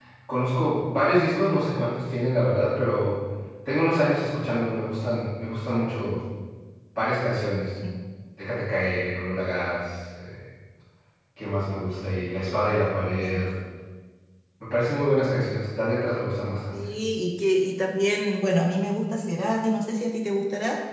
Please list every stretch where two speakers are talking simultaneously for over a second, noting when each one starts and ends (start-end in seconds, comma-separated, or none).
none